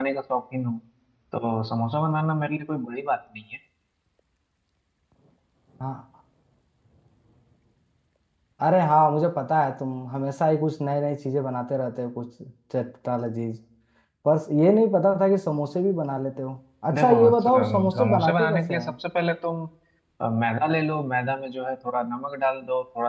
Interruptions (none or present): present